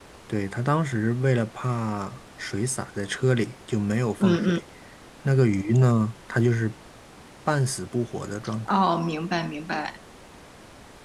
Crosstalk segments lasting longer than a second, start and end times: none

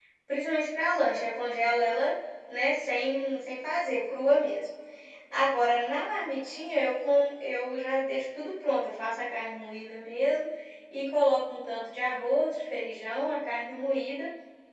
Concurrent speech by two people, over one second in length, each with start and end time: none

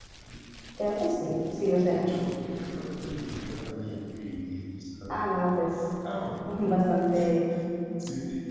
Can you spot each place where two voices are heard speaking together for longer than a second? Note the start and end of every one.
none

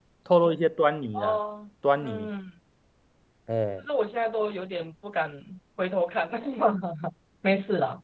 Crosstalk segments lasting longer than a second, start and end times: none

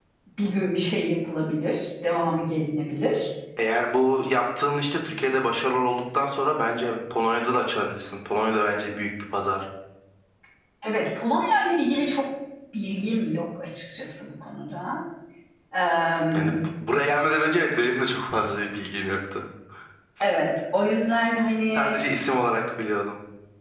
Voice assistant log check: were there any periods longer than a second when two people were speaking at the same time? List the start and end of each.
none

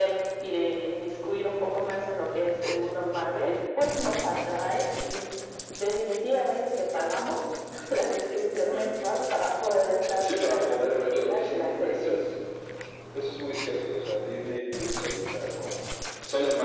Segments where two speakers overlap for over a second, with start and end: 10.2-12.2

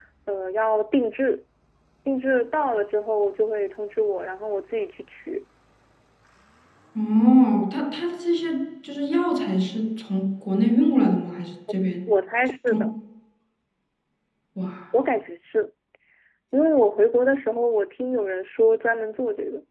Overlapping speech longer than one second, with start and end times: none

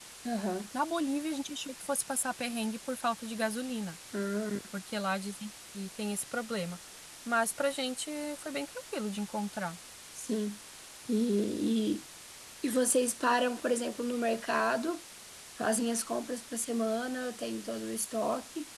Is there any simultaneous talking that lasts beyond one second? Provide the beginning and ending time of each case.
none

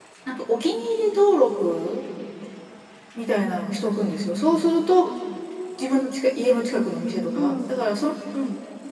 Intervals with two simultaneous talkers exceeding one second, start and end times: none

